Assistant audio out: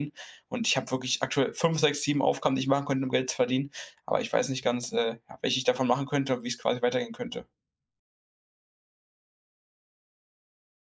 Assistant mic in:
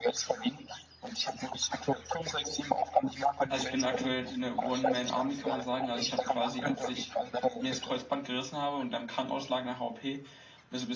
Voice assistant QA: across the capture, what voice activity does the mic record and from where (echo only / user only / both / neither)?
both